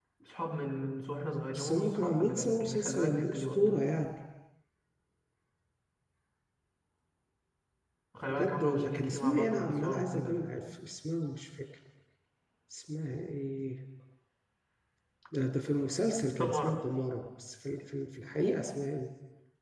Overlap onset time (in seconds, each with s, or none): 1.5 s